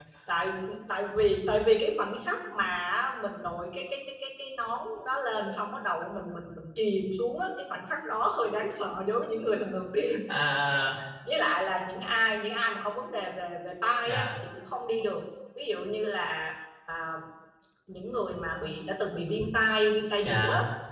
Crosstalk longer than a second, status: none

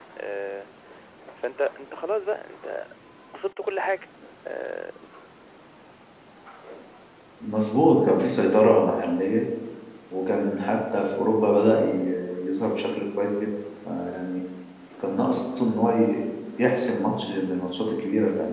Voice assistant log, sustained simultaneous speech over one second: none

